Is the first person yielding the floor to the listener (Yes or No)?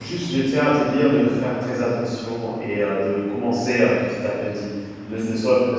No